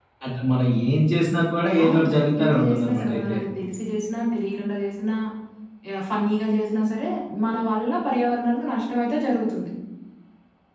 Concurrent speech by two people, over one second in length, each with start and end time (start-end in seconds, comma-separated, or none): 1.8-3.4